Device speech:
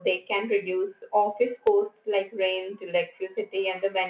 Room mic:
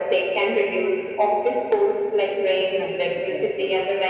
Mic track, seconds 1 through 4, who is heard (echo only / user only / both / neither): both